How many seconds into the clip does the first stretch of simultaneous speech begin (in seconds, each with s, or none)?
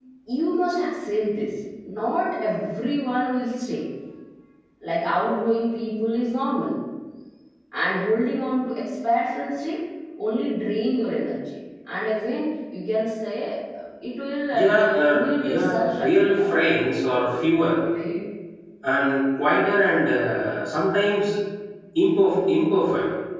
14.5 s